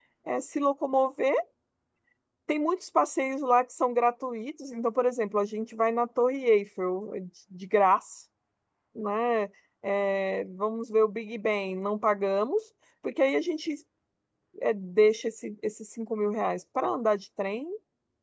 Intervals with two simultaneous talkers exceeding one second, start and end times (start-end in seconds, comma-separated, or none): none